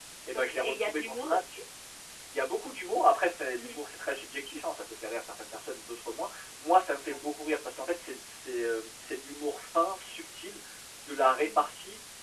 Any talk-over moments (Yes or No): Yes